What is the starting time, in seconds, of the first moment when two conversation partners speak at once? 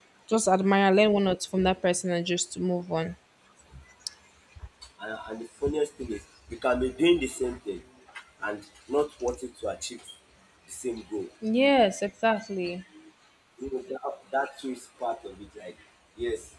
none

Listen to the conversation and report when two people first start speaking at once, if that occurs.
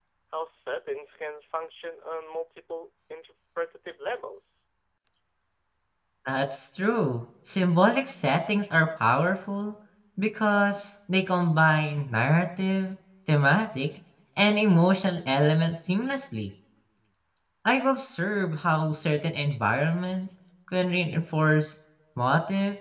none

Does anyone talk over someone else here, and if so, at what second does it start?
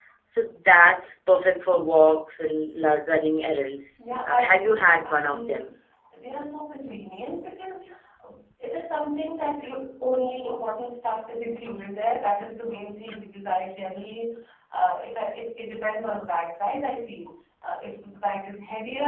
4.0 s

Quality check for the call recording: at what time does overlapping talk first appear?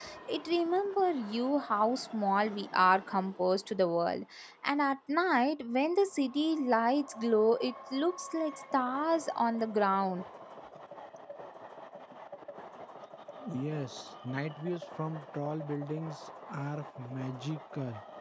none

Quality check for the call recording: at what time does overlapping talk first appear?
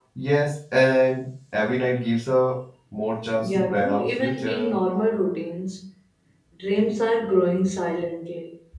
3.4 s

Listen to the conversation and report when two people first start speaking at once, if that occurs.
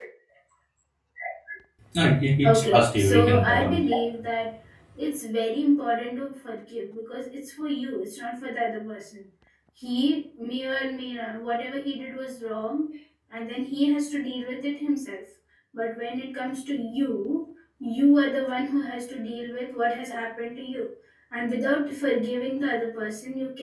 2.4 s

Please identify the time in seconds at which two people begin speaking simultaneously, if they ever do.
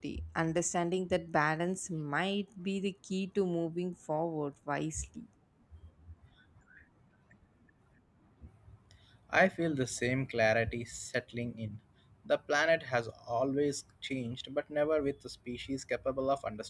none

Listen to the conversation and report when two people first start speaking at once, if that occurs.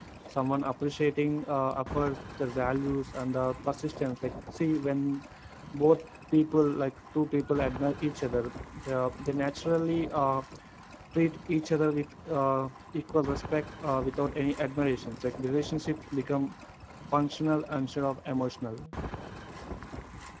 none

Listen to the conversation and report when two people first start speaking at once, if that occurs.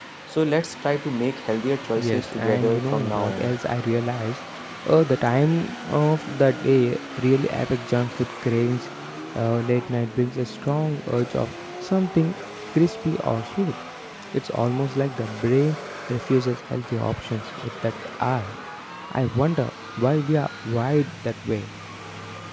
2.0 s

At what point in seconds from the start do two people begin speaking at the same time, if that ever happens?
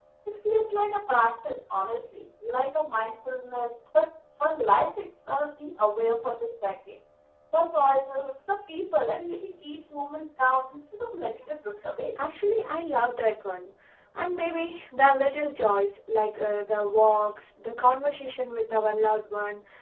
none

